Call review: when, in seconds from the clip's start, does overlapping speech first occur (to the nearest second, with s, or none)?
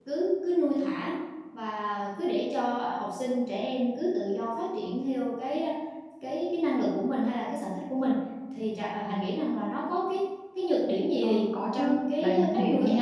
11 s